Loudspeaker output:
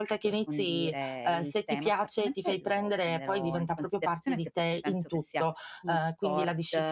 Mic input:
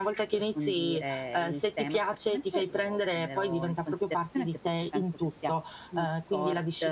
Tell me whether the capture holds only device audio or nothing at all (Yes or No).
Yes